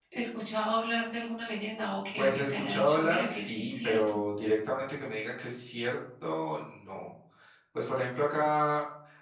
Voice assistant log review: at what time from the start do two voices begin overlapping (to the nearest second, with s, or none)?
2 s